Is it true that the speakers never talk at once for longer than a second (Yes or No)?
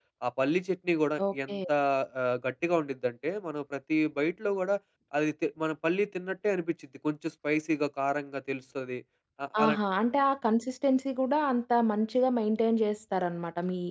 Yes